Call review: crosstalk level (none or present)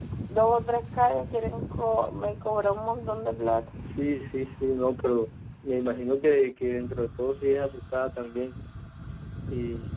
none